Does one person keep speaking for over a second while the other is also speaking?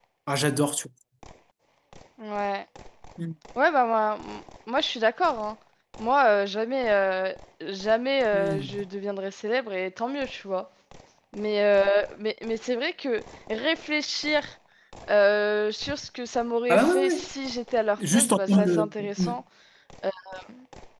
Yes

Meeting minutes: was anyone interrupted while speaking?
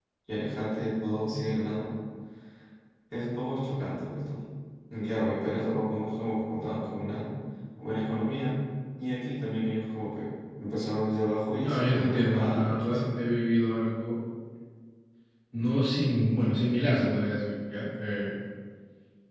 Yes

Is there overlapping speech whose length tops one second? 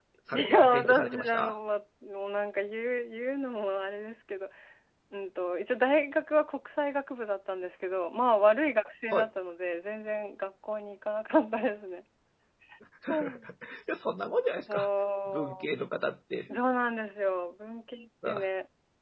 Yes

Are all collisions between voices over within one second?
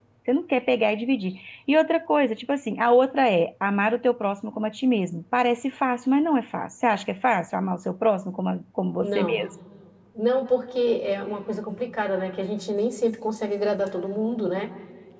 Yes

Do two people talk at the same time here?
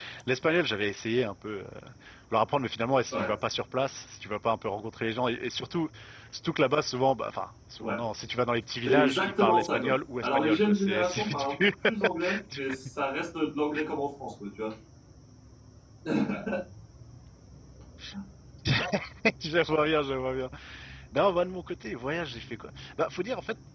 Yes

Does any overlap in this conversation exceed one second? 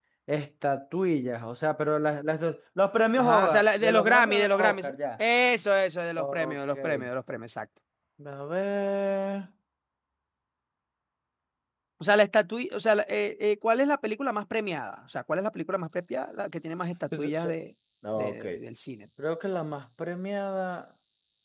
Yes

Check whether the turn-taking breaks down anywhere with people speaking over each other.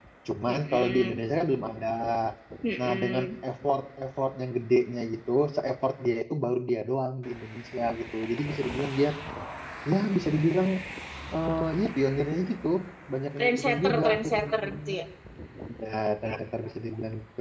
Yes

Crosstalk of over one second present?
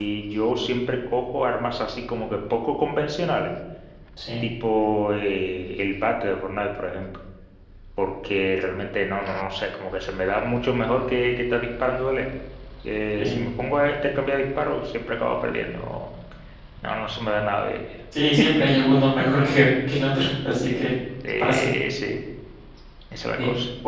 No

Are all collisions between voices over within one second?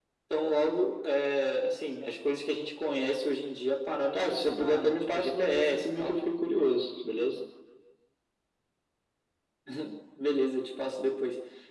No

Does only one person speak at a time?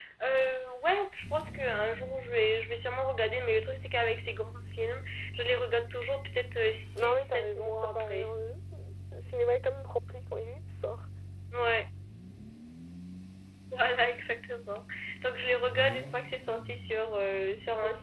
No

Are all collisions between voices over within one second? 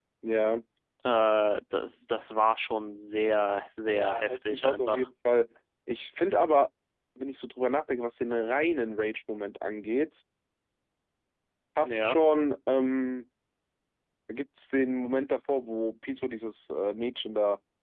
No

